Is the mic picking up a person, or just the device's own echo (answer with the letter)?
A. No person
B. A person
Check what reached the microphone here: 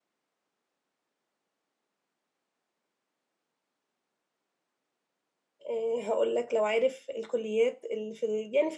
B